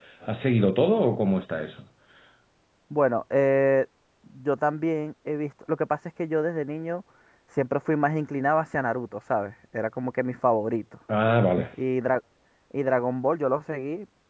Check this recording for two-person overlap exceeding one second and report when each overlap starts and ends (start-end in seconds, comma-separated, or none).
none